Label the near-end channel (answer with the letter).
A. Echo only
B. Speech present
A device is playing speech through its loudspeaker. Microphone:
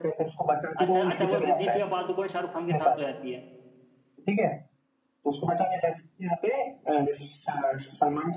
B